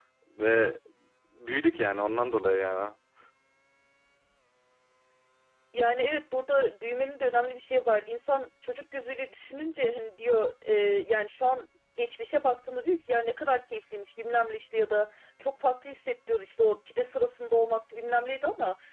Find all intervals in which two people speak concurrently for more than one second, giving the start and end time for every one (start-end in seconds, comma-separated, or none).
none